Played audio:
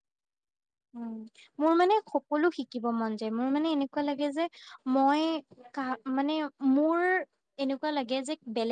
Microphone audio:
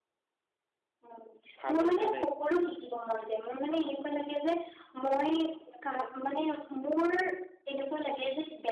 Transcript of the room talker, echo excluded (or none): ভালে ভালে